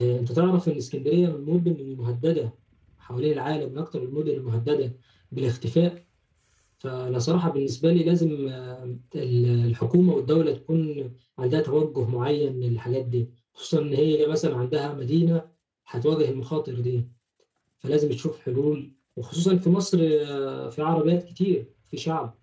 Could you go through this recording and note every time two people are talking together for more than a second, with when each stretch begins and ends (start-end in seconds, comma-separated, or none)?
none